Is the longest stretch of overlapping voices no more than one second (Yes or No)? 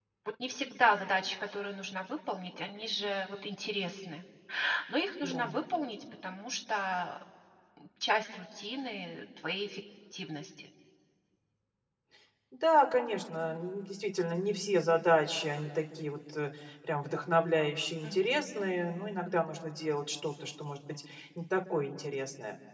Yes